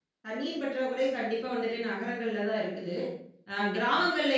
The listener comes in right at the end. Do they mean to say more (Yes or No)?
No